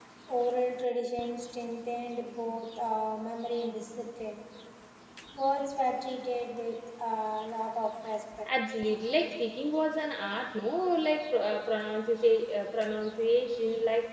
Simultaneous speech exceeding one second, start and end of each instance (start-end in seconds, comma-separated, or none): none